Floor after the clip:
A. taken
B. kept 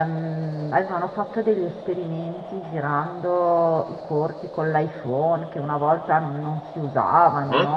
A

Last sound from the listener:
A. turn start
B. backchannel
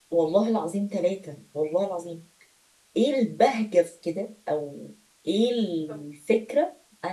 B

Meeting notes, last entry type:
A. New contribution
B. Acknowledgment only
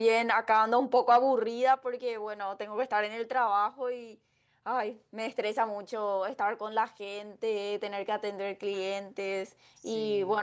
B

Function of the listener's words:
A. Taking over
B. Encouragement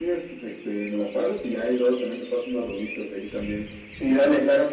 A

